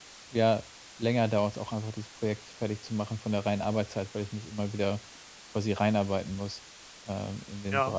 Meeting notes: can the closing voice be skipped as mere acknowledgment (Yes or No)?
No